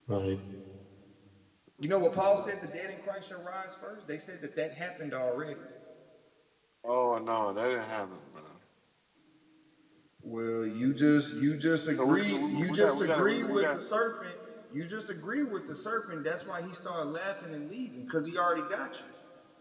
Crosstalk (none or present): present